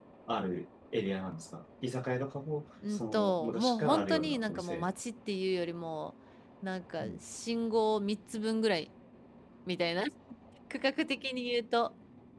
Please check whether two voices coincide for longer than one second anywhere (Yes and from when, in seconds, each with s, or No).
Yes, from 2.8 s